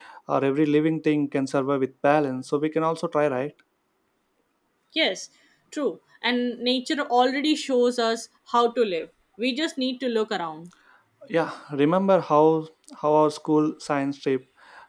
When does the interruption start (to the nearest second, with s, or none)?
none